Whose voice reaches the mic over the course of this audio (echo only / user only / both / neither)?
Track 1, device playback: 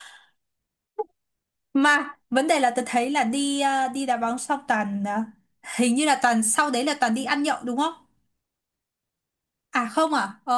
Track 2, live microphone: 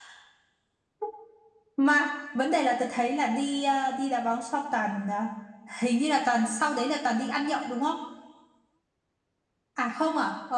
echo only